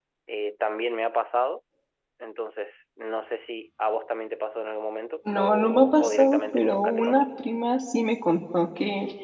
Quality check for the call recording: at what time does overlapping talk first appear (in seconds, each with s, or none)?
5.2 s